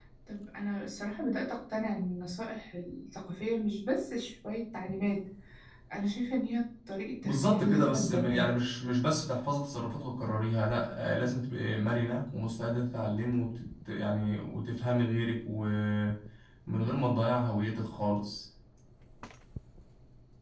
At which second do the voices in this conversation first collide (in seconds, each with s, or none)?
7.2 s